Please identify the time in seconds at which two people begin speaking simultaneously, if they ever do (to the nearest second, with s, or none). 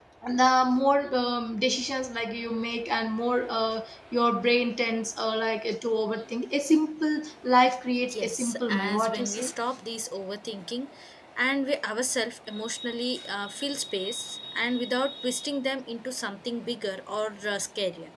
8 s